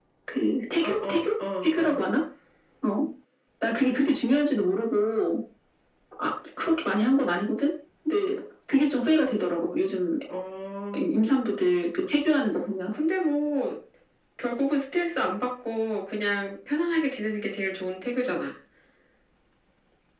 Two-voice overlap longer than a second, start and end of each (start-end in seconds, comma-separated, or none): 0.8-2.0